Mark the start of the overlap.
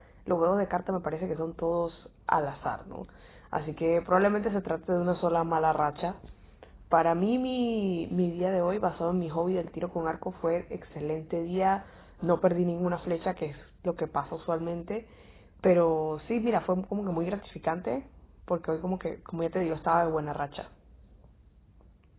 none

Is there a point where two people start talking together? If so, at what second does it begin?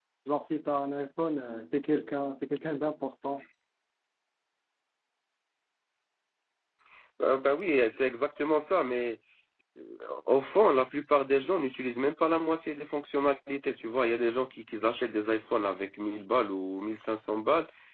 none

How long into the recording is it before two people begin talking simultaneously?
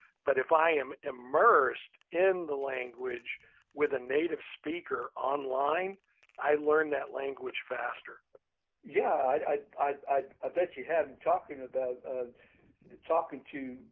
none

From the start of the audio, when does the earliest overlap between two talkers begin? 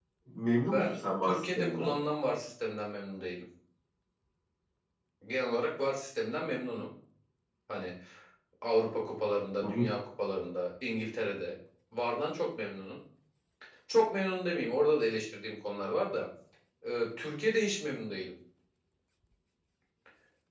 0.5 s

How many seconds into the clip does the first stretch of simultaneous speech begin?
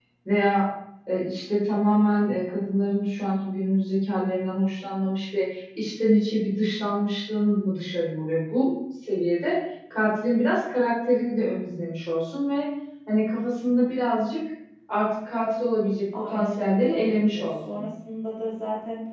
16.1 s

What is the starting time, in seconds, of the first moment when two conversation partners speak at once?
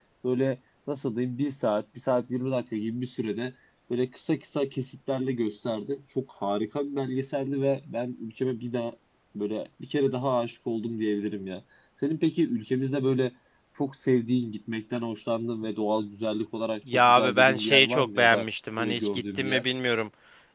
16.9 s

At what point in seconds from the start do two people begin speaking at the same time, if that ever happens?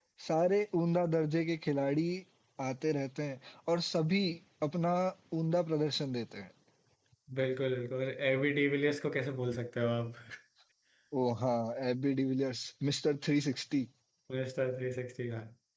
none

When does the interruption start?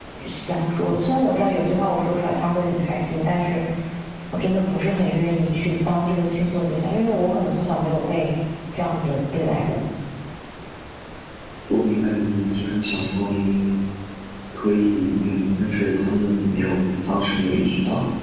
none

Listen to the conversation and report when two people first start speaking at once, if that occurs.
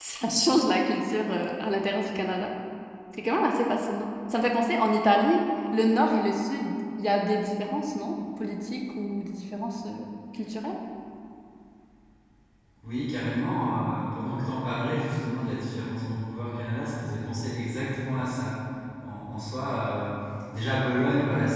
none

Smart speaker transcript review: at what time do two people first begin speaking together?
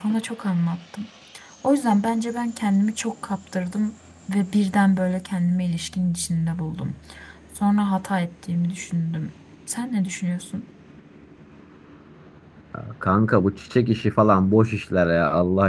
none

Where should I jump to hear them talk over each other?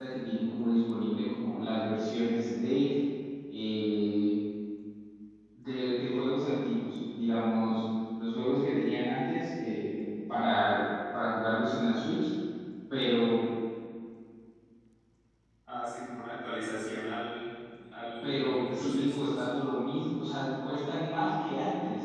18.2 s

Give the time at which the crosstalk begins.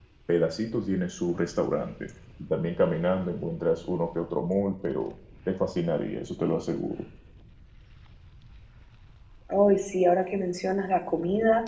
none

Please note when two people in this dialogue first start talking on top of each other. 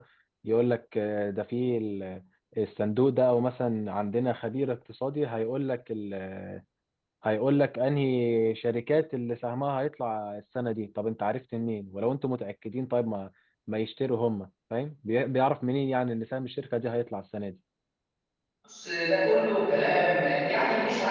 none

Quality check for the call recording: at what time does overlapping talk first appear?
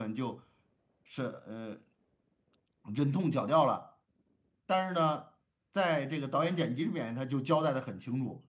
none

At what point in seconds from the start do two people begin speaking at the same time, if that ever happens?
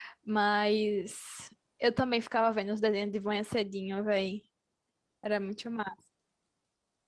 none

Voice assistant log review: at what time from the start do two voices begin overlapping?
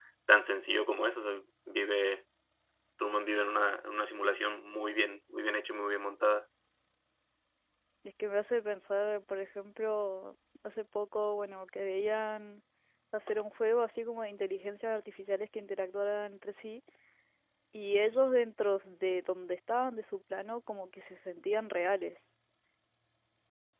none

